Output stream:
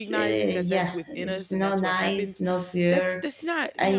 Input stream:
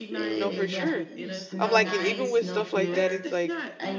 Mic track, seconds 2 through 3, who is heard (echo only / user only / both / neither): both